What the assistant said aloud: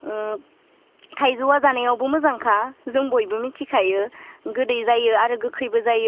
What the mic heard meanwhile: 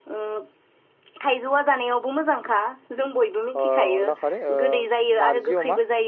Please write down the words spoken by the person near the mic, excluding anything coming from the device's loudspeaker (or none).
ओ अनला खारै ओ नारजि अमा